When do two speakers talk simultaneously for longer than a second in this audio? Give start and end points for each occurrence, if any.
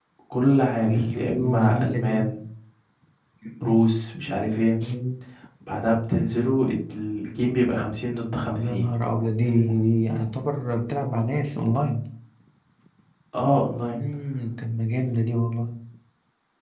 0.9-2.1

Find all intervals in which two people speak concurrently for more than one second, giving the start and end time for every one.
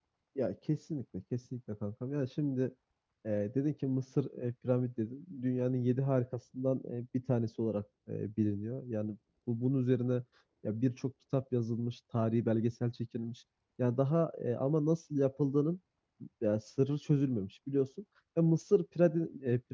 none

